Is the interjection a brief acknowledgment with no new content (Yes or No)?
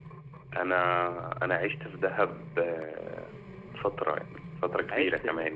Yes